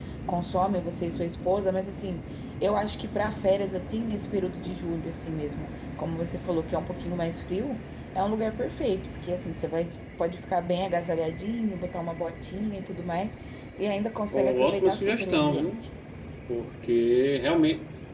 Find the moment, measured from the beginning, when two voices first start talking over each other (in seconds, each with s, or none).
14.3 s